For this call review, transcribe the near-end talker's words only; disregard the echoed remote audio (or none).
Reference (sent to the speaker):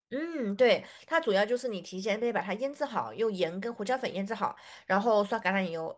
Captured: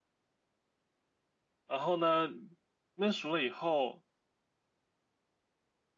然后呢，焖熟了以后，